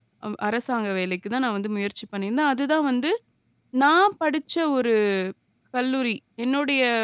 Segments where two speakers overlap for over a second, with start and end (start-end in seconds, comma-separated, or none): none